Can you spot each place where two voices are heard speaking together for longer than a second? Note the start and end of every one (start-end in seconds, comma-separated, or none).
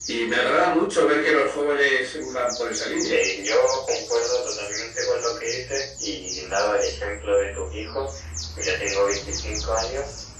none